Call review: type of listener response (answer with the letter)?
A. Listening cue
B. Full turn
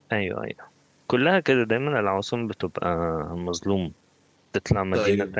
A